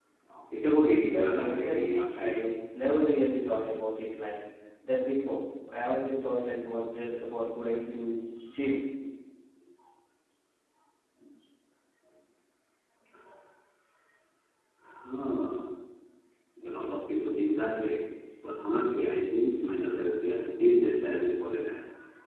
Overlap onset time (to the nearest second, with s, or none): 1 s